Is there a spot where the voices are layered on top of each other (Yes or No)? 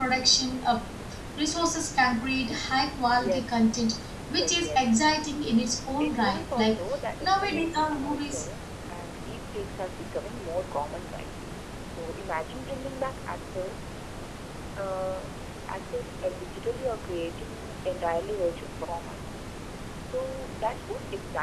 Yes